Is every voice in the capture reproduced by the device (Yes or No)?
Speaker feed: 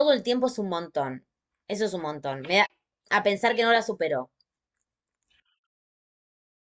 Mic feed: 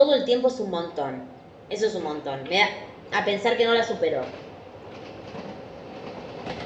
Yes